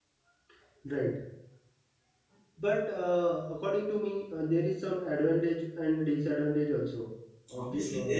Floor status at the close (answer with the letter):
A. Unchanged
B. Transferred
B